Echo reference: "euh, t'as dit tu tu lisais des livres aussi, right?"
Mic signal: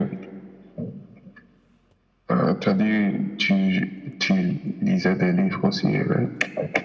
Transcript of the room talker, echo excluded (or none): none